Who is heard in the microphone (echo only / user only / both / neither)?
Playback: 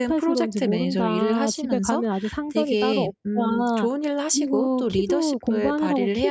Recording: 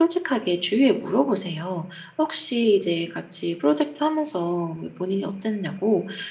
user only